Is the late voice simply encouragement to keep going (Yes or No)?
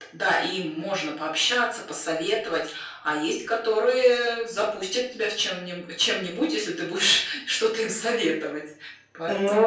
No